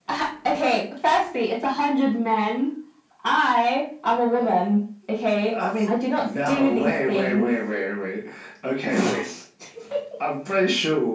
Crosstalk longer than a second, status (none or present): present